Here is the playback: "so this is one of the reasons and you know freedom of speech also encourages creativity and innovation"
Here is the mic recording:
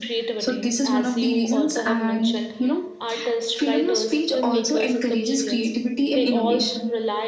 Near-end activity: present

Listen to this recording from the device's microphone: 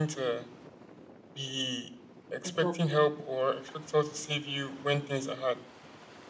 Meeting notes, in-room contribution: present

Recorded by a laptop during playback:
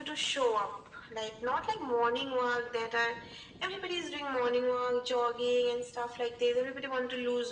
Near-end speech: none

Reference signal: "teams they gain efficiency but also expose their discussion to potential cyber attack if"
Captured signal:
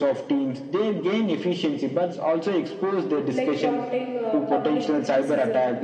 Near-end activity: present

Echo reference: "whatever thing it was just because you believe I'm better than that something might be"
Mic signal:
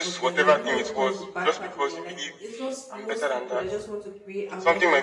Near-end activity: present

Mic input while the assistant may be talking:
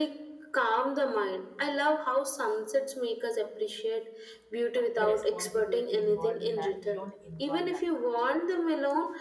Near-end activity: present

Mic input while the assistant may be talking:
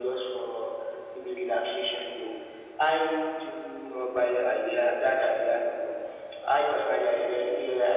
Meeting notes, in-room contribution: none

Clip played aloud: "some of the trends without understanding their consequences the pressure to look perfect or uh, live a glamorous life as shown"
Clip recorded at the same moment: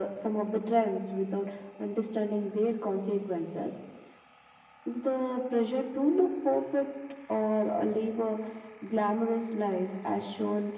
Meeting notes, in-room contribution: none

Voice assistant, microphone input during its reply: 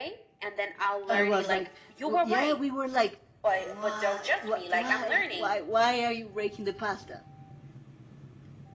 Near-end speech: present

